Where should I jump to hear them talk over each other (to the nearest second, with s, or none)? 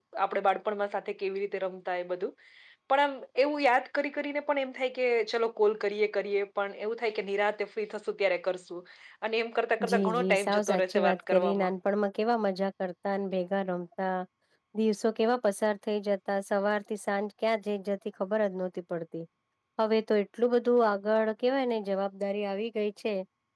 10 s